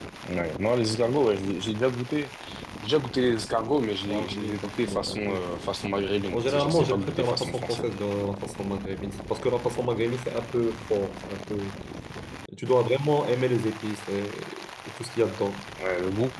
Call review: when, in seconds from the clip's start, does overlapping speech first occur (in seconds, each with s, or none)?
4.1 s